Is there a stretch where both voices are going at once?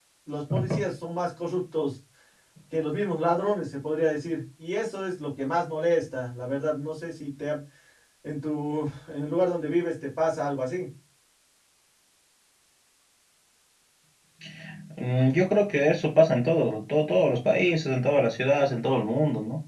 No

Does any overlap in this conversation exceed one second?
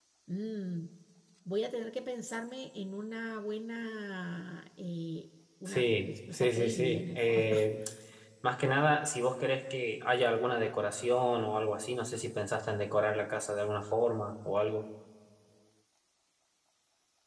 Yes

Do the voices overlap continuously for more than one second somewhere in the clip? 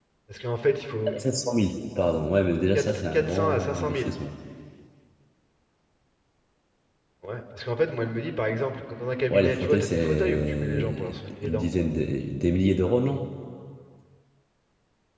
Yes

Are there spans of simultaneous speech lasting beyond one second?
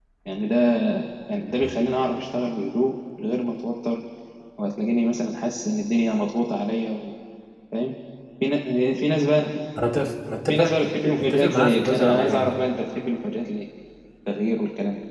Yes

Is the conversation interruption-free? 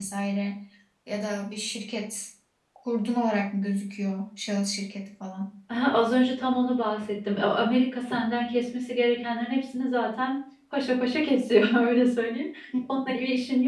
Yes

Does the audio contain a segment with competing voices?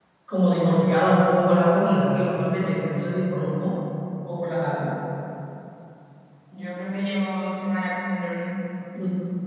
No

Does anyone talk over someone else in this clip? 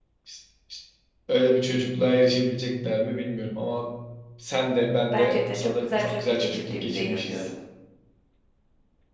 Yes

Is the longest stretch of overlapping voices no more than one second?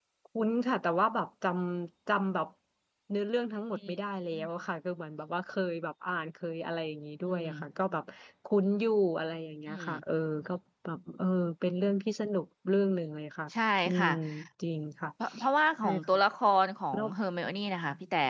Yes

